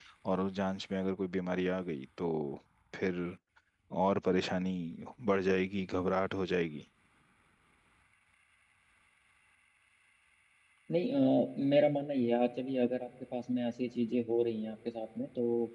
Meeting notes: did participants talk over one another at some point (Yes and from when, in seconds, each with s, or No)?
No